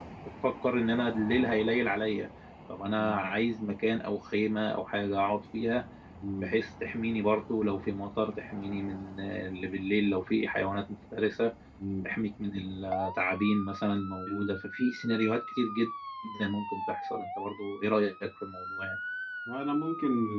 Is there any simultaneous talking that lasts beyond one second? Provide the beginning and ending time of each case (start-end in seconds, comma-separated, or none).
none